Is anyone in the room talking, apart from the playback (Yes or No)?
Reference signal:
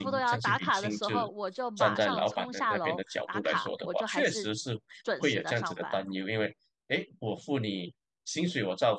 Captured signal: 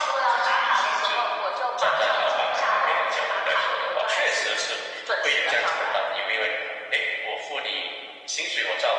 No